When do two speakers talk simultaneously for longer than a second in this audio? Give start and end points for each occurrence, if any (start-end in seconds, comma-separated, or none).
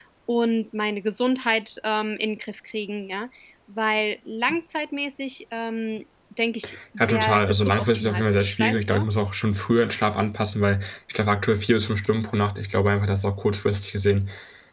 7.0-9.0